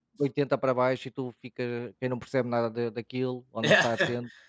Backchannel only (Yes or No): Yes